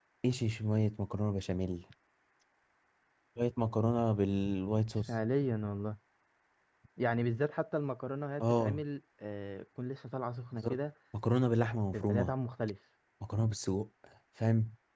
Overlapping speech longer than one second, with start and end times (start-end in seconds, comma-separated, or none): none